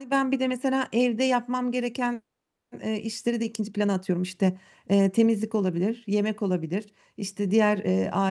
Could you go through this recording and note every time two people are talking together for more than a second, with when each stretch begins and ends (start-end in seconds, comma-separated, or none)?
none